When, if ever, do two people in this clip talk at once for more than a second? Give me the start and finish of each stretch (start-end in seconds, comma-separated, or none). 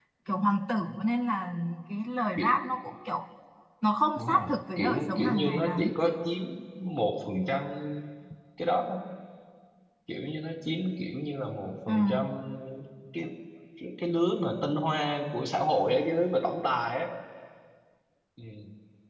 4.2-5.9